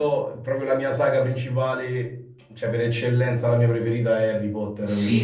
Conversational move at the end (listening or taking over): taking over